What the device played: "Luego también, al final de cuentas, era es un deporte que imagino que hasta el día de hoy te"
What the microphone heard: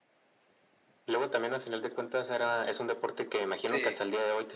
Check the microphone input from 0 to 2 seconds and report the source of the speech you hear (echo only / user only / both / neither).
echo only